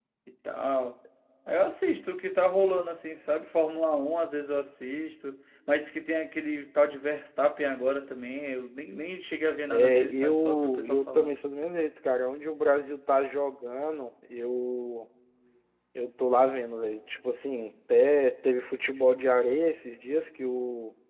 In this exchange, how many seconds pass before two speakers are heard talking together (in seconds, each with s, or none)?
9.7 s